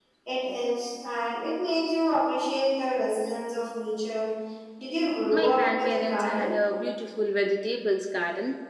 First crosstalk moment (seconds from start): 5 s

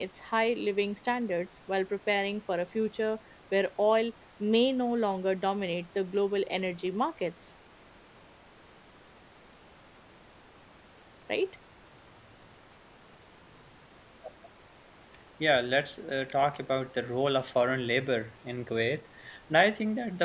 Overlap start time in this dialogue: none

